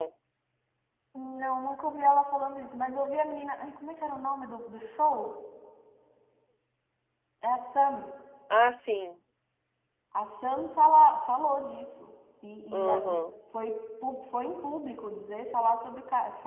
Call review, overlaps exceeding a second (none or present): none